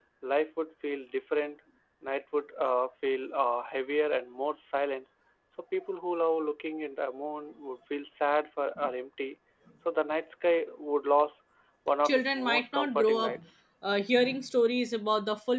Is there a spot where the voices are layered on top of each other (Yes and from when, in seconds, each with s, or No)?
Yes, from 12.0 s